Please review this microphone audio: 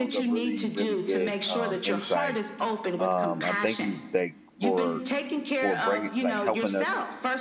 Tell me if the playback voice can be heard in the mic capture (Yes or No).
Yes